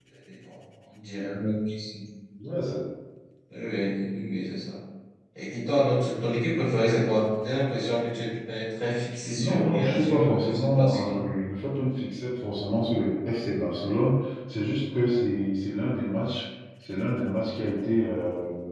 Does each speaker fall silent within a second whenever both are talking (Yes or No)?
No